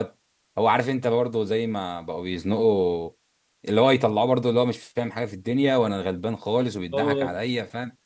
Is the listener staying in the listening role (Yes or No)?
Yes